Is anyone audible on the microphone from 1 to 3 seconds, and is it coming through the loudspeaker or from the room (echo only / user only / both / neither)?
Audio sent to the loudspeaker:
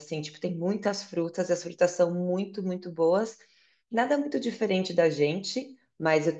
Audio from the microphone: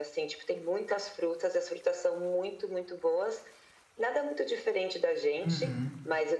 echo only